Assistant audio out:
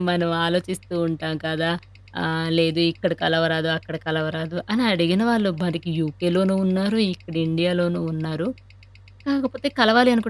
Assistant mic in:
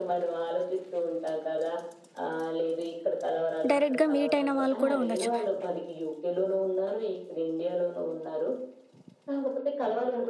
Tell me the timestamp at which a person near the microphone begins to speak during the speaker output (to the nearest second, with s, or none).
4 s